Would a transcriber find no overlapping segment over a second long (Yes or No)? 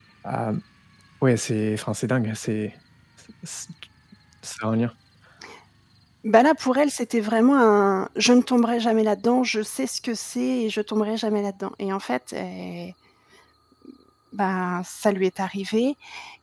Yes